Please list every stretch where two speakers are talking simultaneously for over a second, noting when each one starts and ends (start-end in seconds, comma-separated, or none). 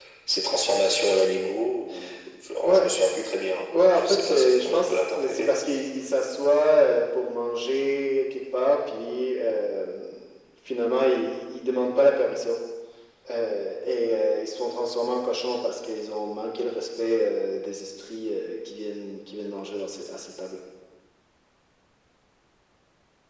3.9-5.5